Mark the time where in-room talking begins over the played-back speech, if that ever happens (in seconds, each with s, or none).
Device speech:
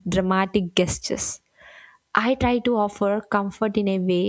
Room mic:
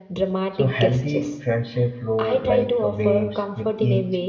0.5 s